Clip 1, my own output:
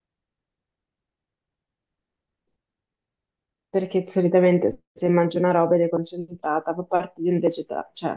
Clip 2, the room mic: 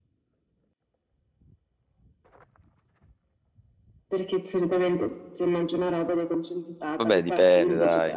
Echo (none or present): present